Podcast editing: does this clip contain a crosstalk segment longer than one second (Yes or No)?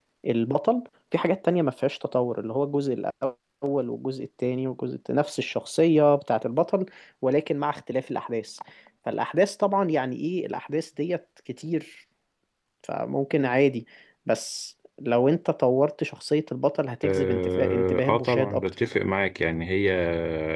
Yes